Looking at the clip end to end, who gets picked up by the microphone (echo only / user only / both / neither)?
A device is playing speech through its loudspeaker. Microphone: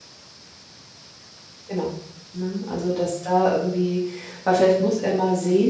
user only